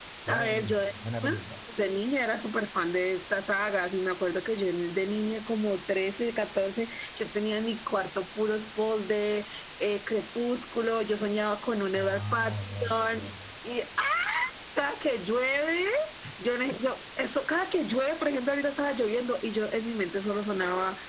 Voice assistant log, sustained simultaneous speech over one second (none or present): present